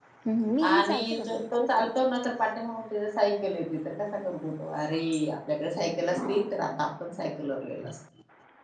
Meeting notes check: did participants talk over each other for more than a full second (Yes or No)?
Yes